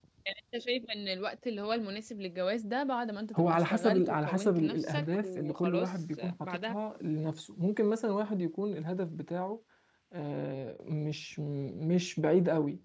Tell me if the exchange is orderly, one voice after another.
No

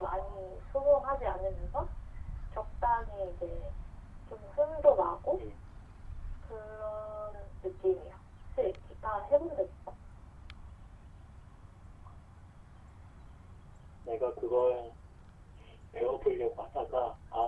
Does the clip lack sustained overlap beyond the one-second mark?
Yes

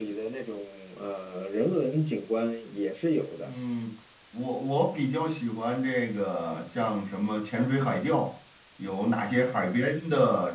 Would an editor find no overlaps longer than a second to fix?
Yes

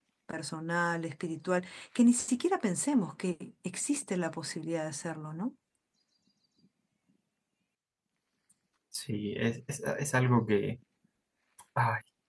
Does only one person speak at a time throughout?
Yes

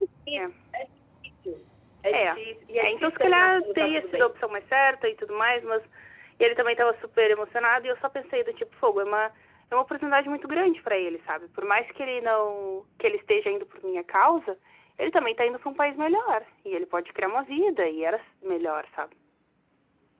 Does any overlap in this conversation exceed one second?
Yes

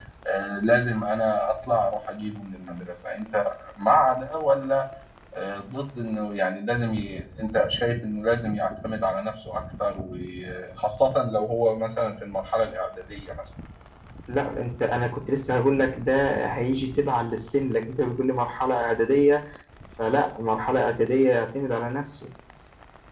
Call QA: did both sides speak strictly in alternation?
Yes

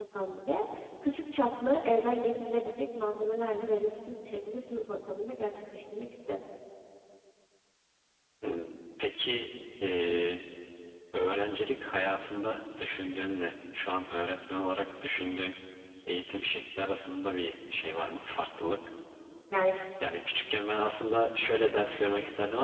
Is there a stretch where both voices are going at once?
No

